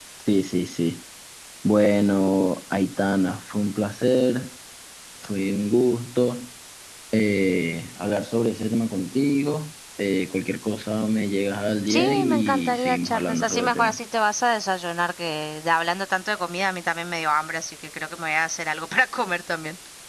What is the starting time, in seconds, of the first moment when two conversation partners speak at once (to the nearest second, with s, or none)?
12 s